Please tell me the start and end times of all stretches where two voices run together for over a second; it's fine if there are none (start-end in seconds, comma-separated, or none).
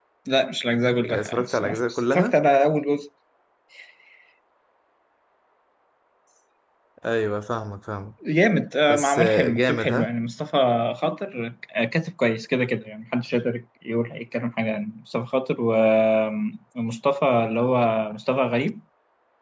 1.0-2.4, 8.9-10.1